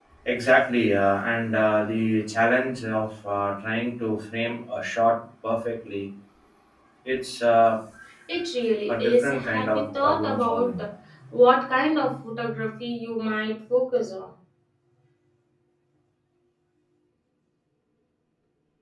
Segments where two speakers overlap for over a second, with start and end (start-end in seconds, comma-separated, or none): 8.9-10.8